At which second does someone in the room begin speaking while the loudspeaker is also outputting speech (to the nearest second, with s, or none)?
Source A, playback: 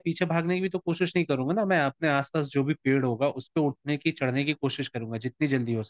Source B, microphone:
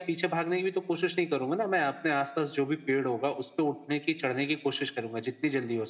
none